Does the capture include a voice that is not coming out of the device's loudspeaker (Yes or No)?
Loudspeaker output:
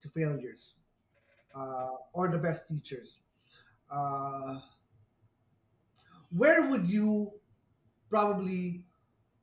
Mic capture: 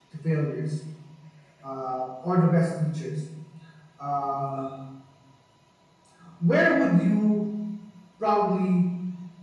No